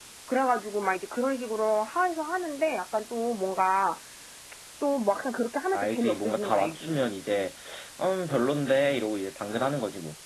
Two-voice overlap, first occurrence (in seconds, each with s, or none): 5.7 s